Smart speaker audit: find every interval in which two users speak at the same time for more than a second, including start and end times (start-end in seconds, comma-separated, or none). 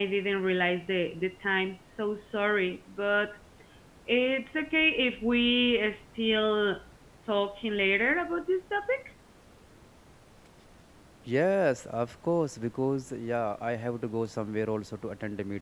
none